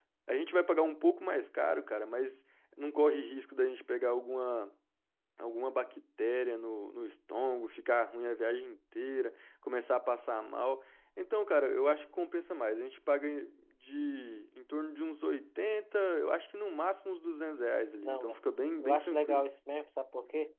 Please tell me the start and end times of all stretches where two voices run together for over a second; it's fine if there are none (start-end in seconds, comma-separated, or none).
18.0-19.4